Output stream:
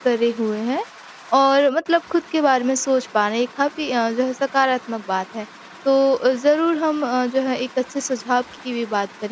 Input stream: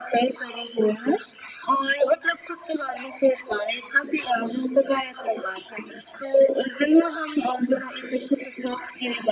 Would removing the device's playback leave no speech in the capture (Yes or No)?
Yes